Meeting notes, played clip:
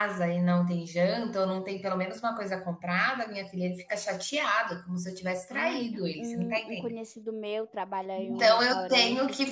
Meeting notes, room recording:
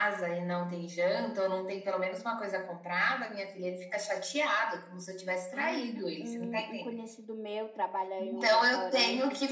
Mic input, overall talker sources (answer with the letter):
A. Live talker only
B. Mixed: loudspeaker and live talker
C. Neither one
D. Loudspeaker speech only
D